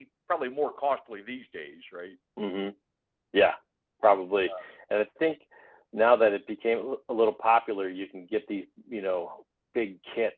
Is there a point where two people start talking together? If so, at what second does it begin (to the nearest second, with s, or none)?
none